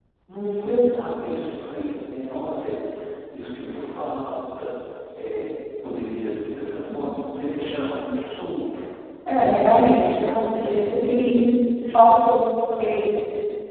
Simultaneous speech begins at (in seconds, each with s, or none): 9.4 s